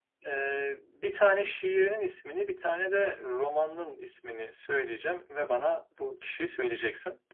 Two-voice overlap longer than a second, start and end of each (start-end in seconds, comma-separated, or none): none